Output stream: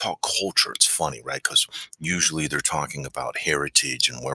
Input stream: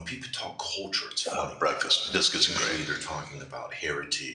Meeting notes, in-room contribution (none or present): present